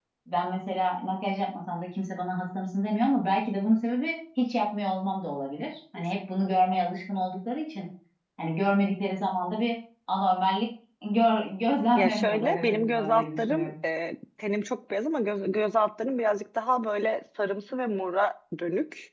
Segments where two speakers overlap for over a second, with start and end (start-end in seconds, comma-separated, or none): 11.9-13.7